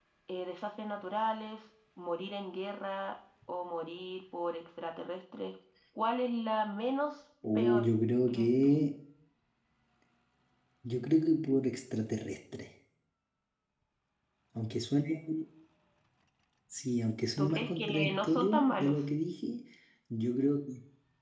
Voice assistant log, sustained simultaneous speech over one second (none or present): present